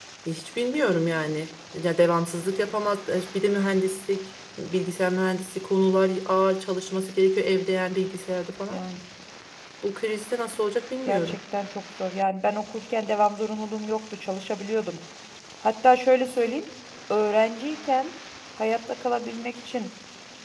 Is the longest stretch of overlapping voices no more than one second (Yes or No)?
Yes